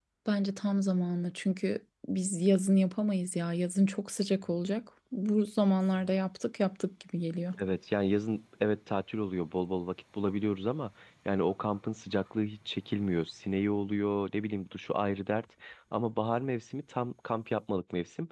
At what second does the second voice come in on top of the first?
none

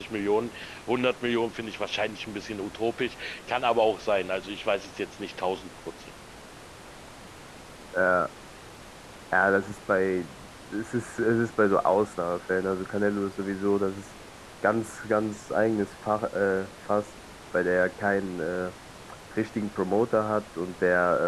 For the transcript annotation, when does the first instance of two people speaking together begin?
none

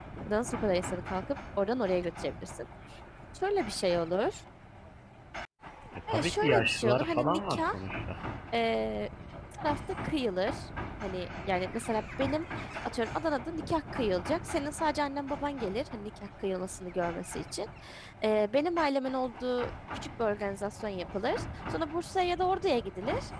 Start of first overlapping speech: 6.1 s

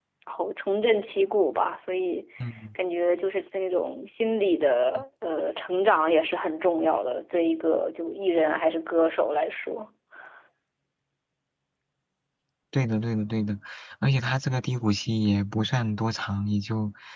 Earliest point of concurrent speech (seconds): none

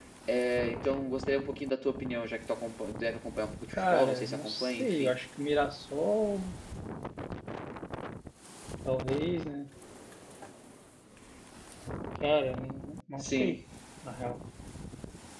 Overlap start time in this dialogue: 3.8 s

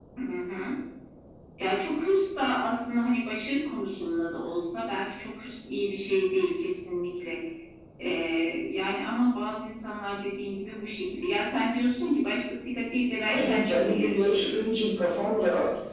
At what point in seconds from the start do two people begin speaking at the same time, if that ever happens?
13.3 s

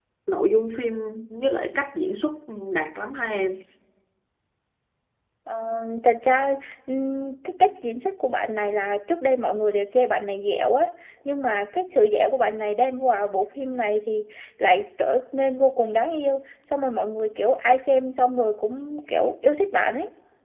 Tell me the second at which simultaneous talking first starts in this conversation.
none

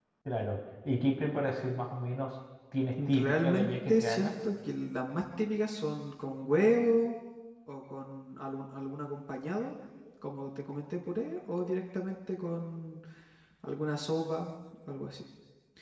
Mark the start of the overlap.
3.0 s

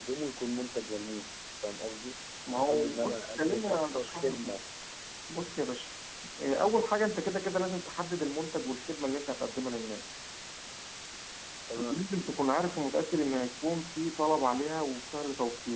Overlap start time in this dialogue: 2.5 s

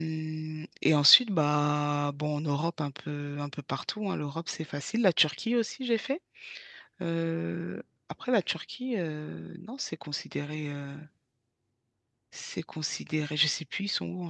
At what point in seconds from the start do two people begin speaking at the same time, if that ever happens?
none

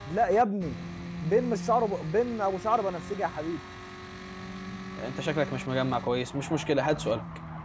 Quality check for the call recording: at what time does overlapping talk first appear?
none

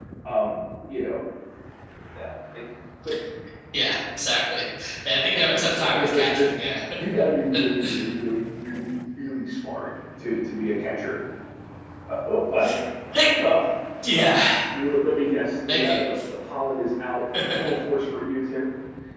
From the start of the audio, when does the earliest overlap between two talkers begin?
5.2 s

